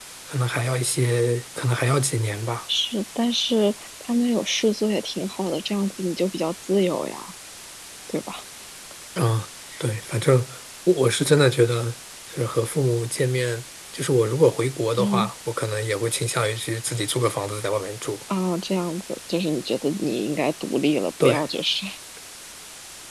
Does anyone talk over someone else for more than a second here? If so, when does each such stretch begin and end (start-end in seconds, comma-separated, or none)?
none